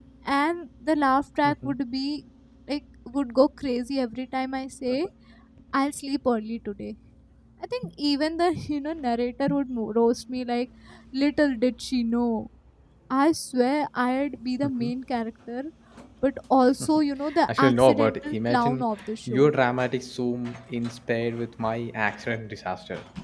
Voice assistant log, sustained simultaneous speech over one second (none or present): present